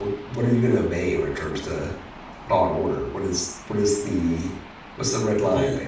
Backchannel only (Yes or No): No